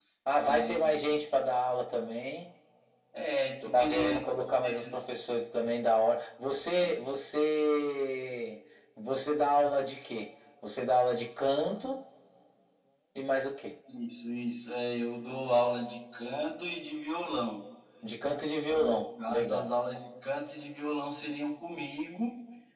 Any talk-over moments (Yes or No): Yes